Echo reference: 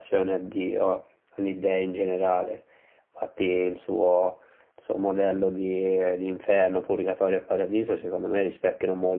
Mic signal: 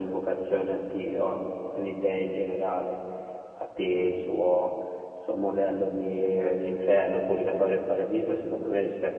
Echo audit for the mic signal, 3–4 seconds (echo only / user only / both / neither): echo only